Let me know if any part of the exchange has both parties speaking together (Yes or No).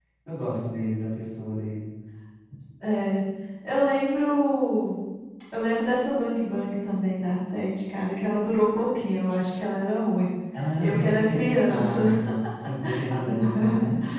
Yes